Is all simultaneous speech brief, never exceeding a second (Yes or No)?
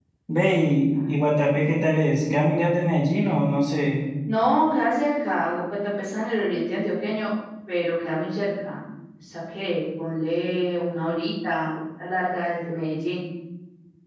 Yes